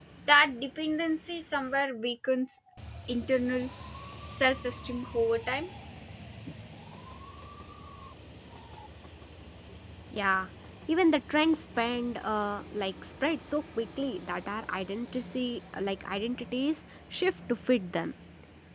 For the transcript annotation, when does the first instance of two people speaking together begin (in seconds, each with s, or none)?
none